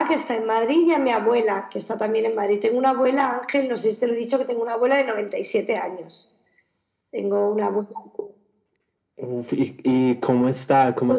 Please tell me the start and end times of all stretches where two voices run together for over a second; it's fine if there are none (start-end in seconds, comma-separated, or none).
none